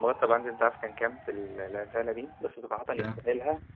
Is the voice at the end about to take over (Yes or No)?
No